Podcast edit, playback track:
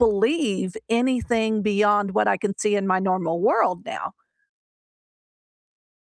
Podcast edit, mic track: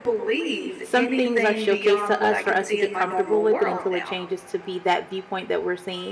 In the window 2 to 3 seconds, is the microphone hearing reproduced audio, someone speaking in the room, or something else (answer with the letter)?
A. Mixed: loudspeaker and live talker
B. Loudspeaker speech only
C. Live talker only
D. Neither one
A